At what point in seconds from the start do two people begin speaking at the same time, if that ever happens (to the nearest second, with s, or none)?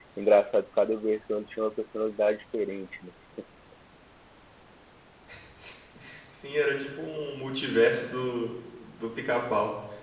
none